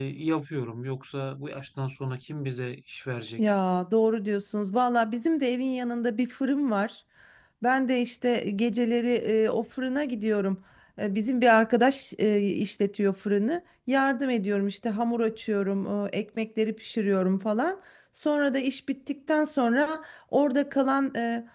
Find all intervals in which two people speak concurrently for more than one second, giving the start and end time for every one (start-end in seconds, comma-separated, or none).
none